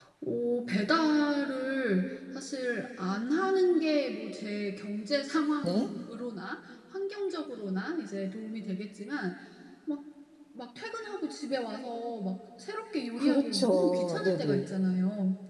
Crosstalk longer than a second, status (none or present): present